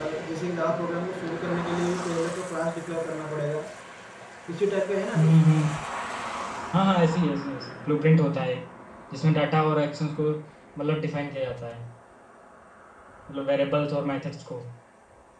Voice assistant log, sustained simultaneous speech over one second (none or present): none